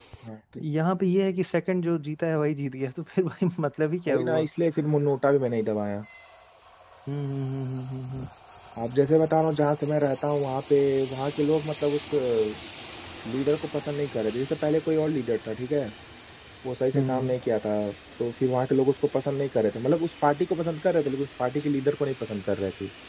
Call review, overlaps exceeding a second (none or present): none